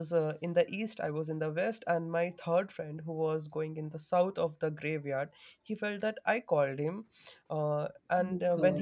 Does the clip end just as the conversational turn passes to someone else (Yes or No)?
No